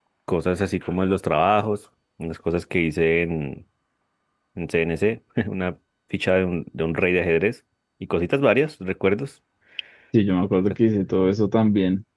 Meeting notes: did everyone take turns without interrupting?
Yes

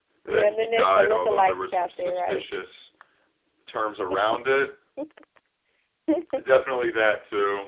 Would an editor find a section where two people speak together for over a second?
Yes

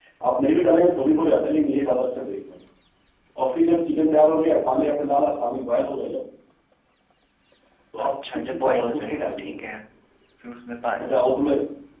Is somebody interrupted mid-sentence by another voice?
Yes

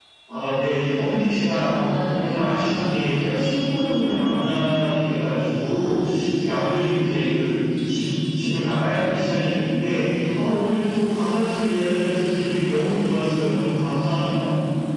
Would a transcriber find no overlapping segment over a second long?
No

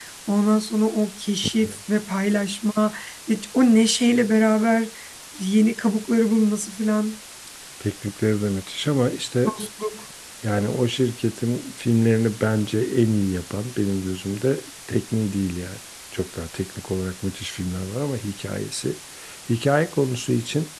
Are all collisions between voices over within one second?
Yes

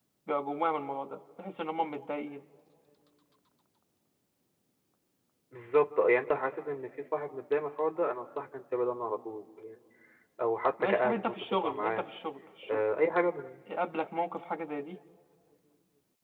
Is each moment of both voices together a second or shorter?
No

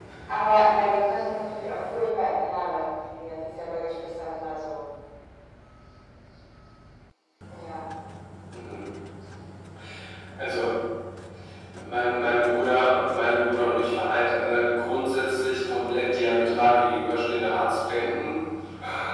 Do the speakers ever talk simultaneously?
No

